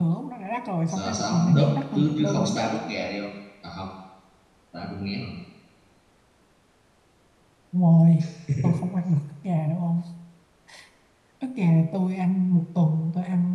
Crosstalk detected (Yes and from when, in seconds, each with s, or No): Yes, from 0.9 s